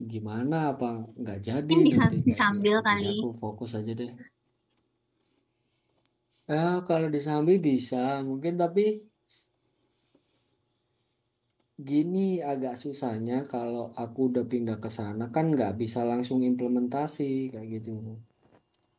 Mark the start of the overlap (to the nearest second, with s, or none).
2 s